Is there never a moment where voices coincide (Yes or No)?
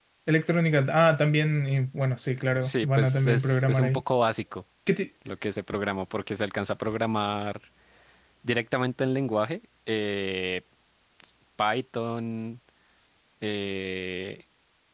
No